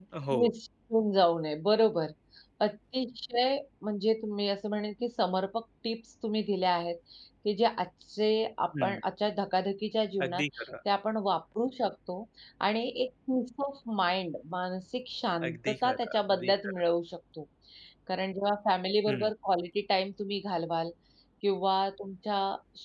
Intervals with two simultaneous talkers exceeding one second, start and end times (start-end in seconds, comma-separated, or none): 15.5-16.7